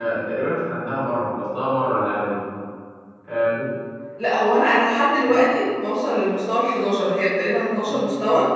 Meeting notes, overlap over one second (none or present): none